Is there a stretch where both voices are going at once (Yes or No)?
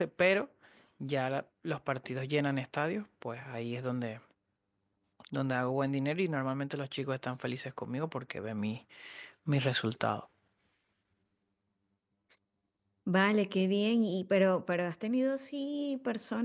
No